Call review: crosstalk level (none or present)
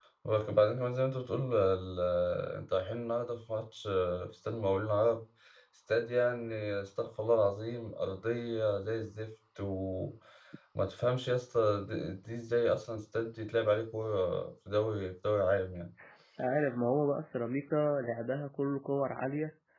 none